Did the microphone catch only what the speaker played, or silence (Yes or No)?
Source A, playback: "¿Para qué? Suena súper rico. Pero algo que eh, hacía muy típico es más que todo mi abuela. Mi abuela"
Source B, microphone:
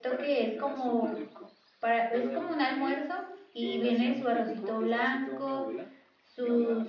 No